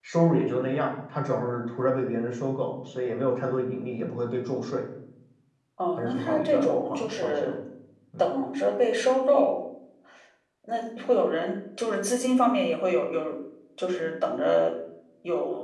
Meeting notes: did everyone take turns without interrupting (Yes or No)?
No